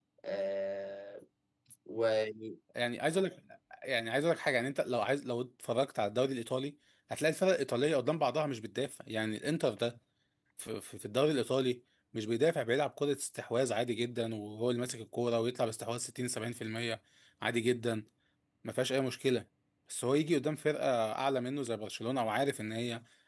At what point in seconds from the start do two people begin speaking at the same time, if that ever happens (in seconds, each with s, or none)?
none